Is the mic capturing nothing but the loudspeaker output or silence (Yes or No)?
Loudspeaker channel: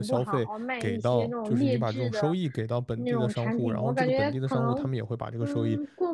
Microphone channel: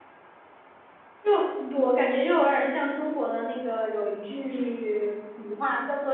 No